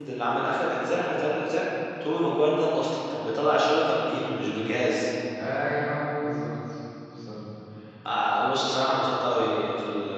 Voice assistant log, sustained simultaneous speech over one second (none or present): none